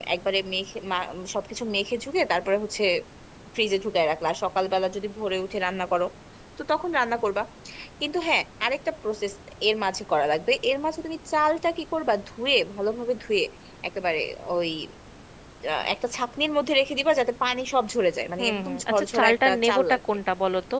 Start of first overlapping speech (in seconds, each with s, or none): 18.4 s